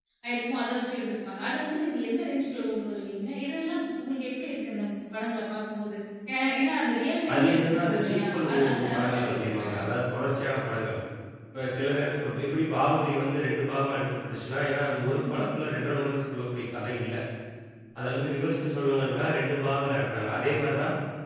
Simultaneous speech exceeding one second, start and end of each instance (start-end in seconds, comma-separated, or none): 7.3-9.8